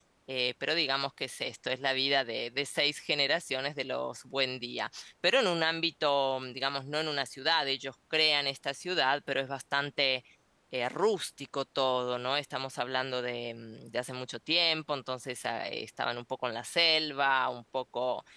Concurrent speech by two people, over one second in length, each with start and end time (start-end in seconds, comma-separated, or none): none